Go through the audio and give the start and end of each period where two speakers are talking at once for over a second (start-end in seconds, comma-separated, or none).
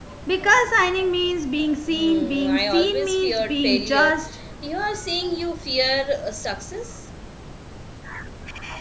1.9-4.2